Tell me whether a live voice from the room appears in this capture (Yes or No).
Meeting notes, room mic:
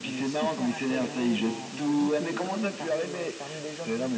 No